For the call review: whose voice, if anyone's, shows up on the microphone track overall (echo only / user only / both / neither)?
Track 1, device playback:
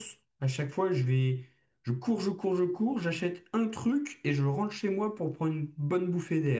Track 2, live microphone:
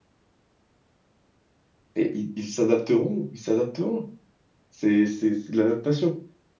user only